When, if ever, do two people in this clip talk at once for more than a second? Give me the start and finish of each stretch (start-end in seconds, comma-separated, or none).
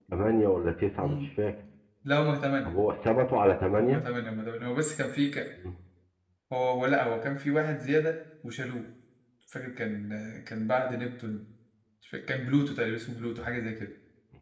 none